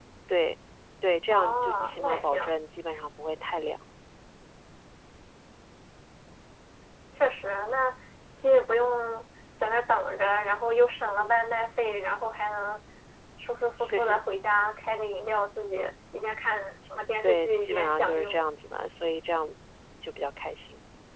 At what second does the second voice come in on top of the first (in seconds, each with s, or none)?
1.3 s